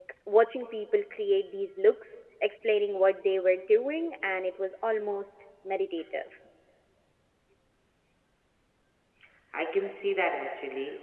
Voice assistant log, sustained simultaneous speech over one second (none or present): none